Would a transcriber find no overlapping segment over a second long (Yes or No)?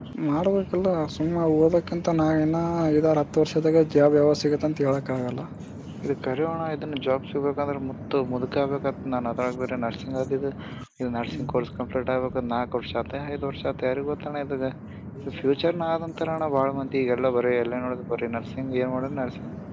Yes